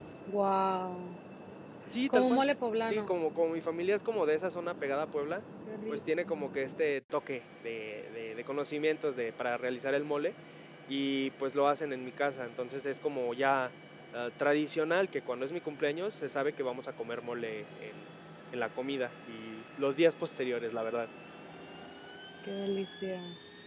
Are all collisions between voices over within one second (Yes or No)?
Yes